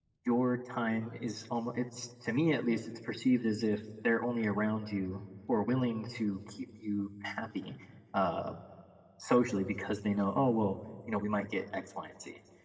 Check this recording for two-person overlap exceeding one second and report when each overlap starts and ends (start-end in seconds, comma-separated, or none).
none